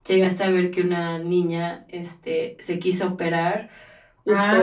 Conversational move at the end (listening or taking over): listening